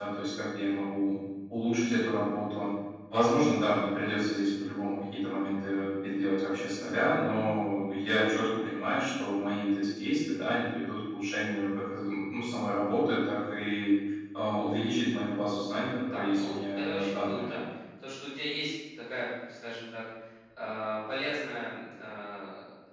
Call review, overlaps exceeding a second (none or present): present